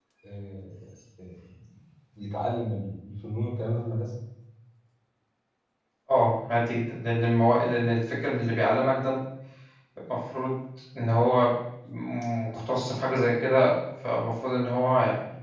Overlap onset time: none

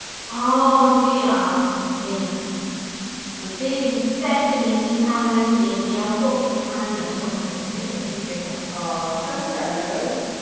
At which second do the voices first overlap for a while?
none

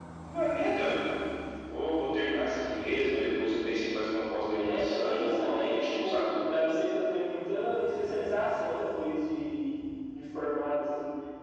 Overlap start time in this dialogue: 4.6 s

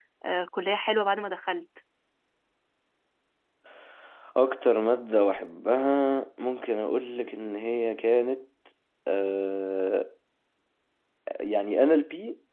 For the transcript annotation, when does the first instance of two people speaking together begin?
none

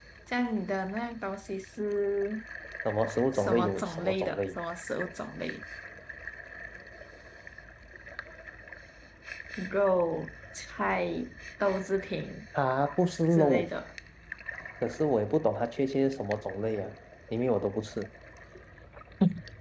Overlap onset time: 3.4 s

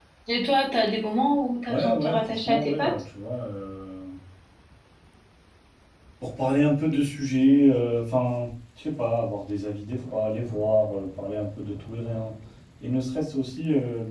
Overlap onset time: 1.7 s

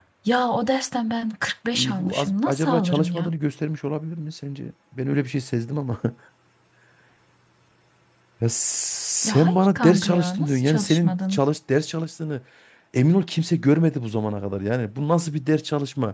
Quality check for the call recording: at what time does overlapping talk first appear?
1.7 s

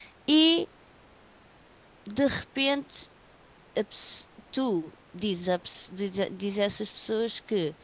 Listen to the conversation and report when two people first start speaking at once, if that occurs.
none

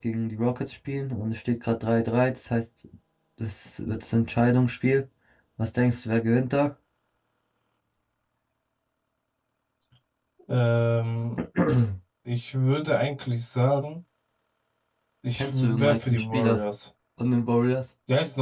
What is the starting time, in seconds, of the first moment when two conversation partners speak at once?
15.3 s

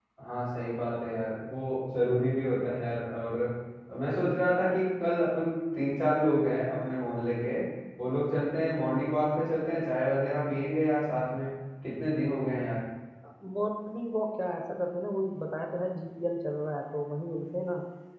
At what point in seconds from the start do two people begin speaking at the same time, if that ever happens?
none

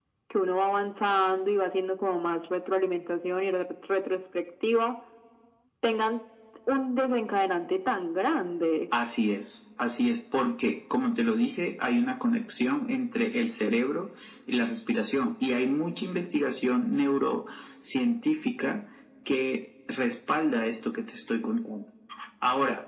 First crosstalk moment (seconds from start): none

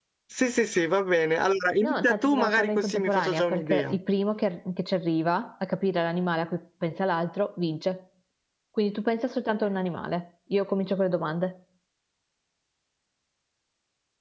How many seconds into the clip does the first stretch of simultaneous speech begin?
1.8 s

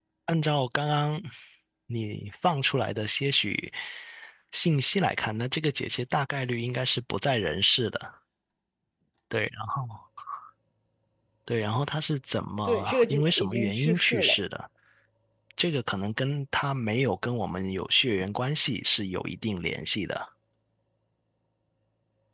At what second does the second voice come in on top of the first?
12.6 s

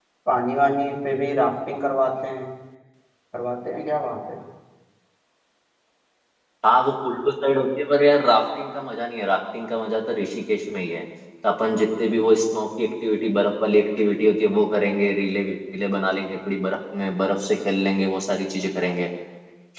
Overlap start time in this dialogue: none

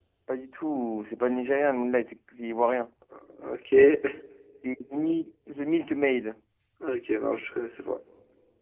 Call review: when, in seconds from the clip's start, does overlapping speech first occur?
none

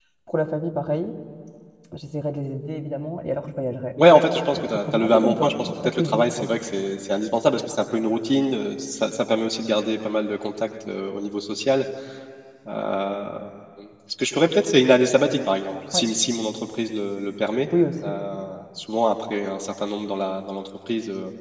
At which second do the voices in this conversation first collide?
4.5 s

